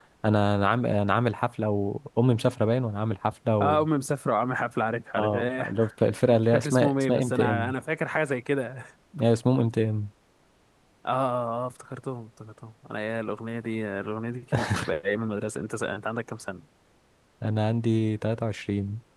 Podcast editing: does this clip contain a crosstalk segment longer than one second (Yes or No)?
Yes